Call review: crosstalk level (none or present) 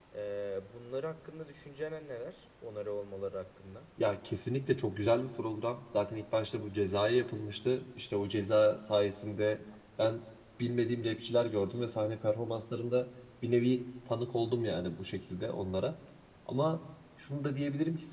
none